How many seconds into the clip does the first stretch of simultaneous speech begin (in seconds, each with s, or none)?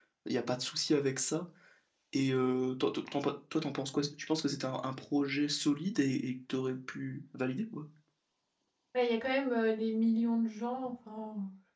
none